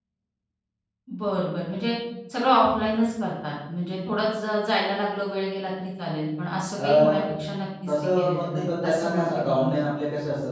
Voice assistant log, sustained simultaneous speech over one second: present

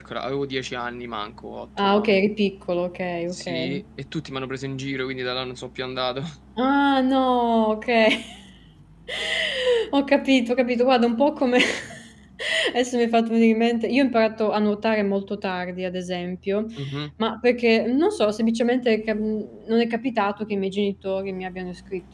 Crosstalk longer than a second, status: none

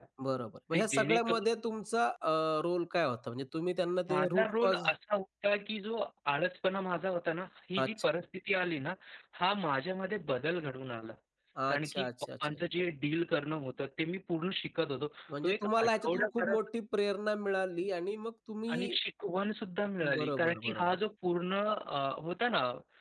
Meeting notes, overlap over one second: present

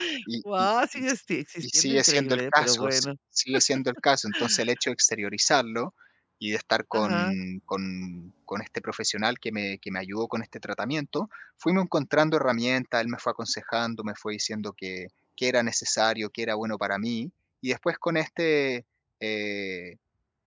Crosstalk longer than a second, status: present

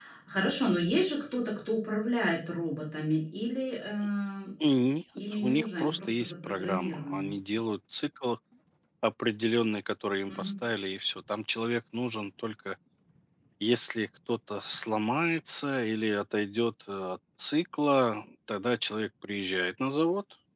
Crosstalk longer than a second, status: present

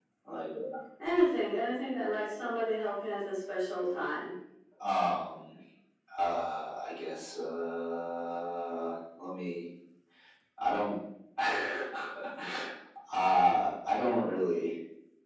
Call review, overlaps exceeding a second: none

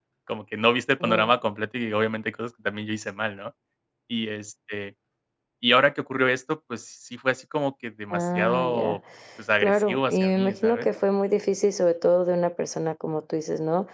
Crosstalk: present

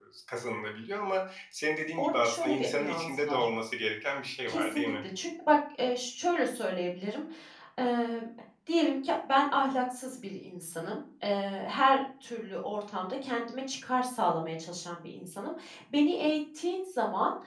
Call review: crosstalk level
present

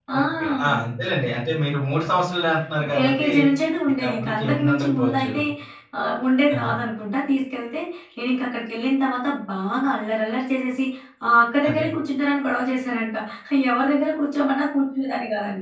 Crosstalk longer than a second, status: present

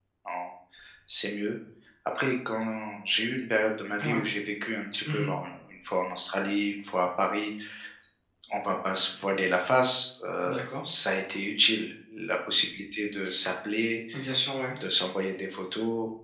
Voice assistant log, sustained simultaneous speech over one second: none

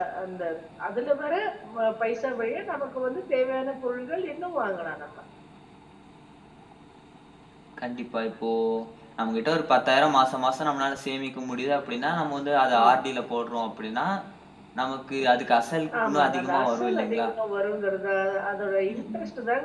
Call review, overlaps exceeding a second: present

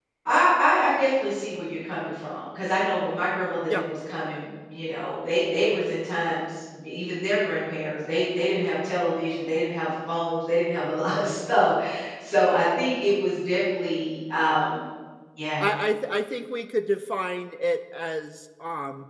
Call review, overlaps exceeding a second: none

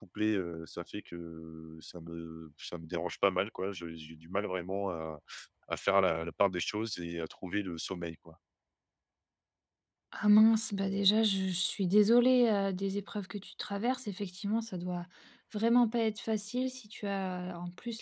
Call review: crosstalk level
none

